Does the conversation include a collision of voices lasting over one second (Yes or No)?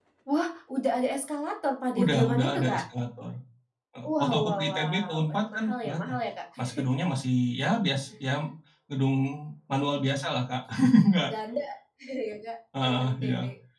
Yes